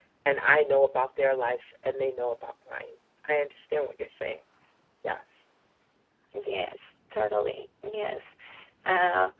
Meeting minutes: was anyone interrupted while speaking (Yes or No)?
No